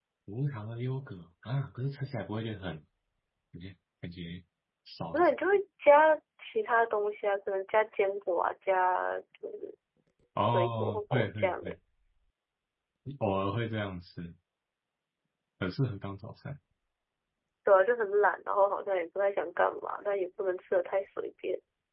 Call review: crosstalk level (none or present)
present